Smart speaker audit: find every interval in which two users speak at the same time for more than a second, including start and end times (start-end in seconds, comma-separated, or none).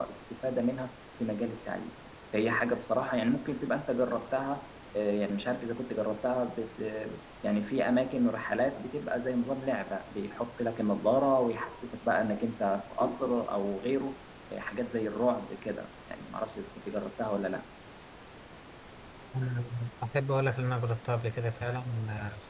none